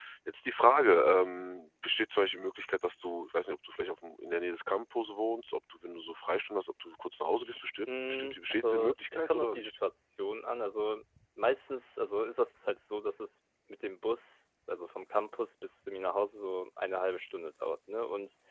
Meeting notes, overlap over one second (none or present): present